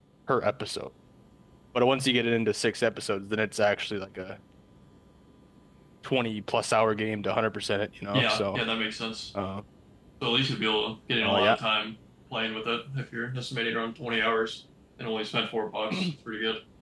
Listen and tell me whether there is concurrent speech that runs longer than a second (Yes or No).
No